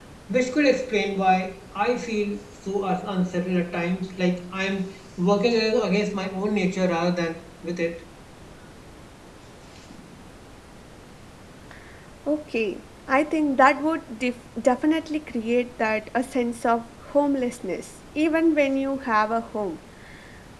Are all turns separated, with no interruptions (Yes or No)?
Yes